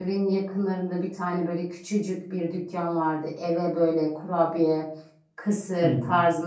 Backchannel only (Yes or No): Yes